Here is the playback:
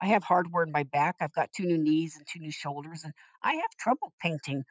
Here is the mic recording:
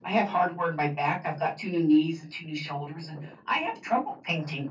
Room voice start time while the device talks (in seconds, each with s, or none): none